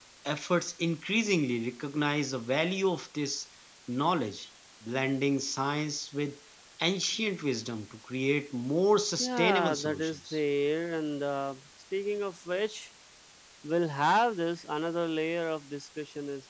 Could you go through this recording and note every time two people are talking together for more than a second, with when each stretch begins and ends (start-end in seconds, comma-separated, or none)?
9.2-10.4